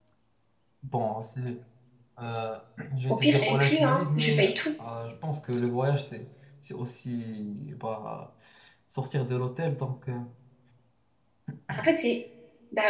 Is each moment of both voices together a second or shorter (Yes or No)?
No